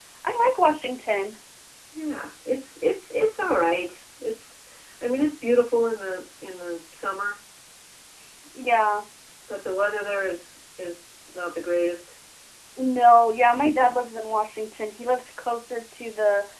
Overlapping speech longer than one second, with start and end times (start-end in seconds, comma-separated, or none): none